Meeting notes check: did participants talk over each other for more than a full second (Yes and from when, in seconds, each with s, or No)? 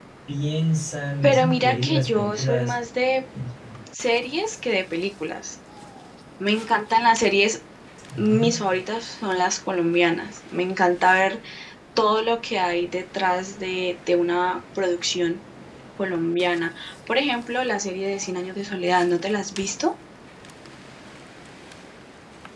Yes, from 1.2 s